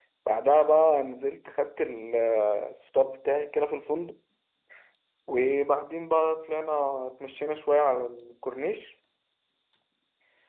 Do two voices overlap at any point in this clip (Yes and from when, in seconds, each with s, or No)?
No